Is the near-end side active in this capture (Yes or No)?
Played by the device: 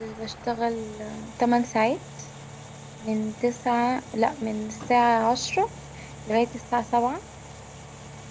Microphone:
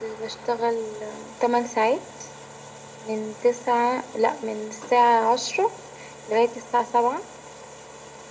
No